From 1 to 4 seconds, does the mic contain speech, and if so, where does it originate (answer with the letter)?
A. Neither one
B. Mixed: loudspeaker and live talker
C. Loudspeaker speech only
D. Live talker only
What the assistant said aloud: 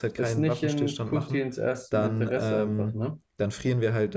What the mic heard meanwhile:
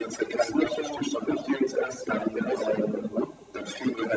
C